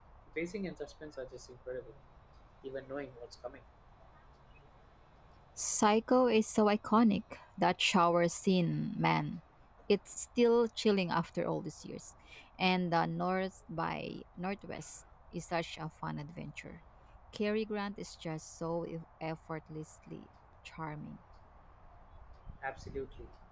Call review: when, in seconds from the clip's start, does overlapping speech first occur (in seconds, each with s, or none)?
none